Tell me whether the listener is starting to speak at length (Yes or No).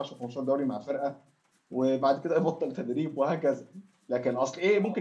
No